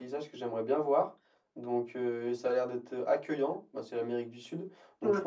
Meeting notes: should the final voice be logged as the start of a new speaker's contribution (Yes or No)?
No